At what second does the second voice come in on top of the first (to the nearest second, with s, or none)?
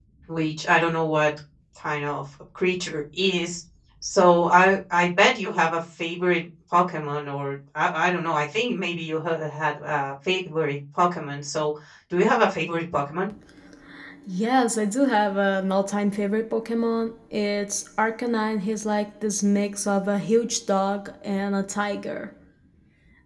none